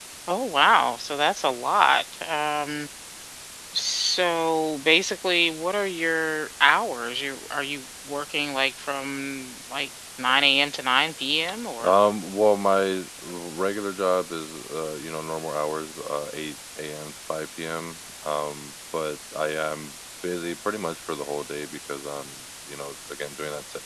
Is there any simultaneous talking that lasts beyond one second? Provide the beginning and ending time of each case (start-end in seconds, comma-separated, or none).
none